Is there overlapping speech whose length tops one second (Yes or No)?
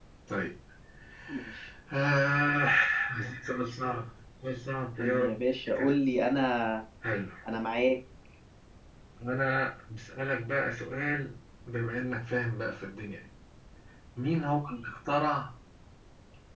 No